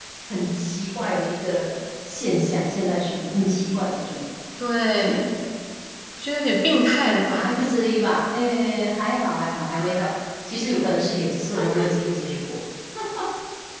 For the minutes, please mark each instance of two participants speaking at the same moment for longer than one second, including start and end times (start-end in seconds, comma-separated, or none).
none